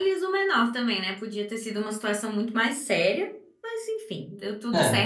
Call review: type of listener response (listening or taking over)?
listening